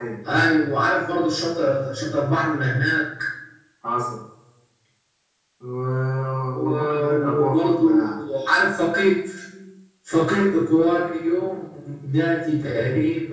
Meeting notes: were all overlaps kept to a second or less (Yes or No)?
No